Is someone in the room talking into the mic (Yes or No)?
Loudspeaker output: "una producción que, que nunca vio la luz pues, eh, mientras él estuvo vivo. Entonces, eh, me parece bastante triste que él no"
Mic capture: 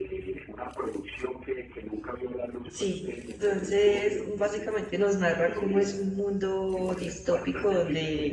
Yes